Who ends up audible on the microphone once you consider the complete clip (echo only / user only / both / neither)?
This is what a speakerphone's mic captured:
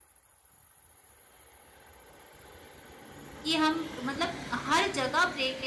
user only